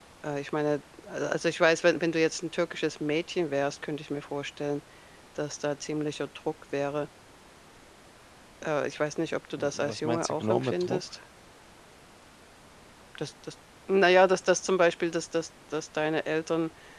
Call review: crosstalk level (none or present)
present